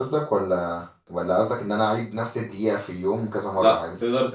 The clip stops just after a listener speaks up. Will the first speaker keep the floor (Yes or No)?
No